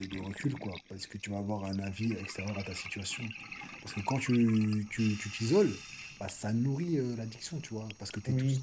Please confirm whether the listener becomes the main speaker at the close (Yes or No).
Yes